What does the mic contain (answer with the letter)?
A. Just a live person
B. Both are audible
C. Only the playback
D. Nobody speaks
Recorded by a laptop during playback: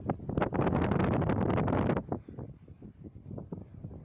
D